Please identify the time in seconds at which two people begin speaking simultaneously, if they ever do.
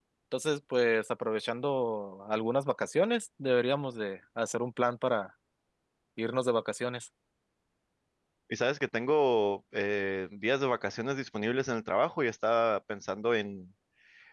none

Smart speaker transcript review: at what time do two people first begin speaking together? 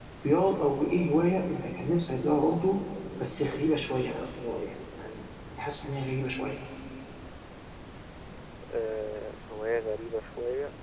none

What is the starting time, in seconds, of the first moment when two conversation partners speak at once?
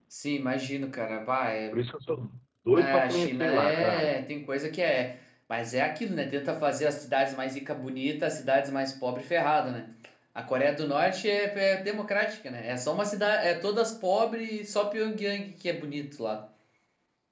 2.8 s

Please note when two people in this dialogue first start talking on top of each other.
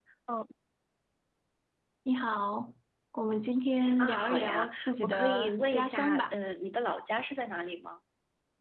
4.0 s

